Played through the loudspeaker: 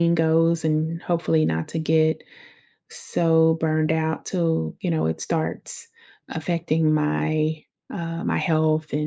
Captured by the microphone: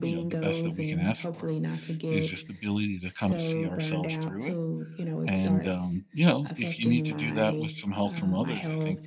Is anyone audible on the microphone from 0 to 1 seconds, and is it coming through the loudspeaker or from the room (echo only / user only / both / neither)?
both